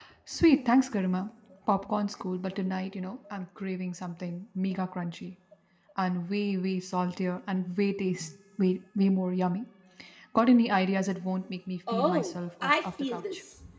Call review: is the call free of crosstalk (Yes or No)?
No